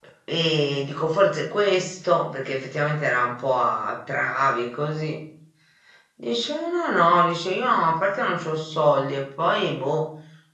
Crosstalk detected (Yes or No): No